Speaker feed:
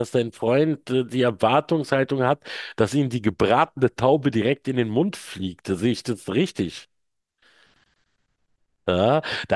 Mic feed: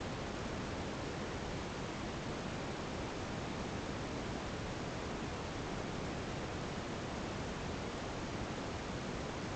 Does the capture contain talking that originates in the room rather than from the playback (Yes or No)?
No